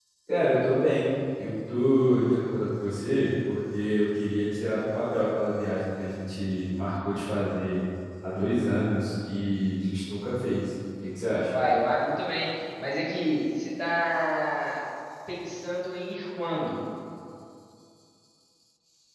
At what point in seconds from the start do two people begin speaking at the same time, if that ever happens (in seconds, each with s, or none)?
none